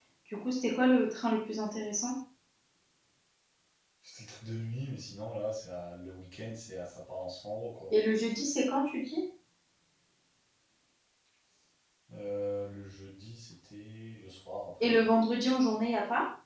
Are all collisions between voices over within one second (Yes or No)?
Yes